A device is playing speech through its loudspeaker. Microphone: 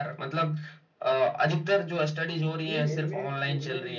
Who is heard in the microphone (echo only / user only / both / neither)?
both